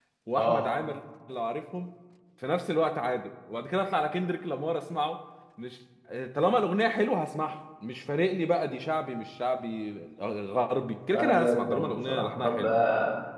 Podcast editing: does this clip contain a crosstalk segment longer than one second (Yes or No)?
Yes